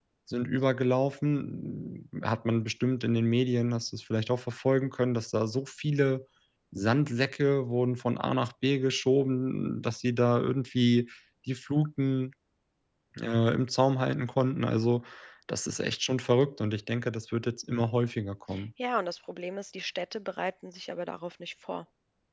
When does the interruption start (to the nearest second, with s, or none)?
none